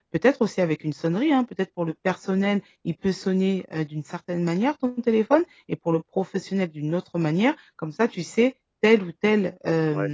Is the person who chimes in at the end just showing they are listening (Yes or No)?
Yes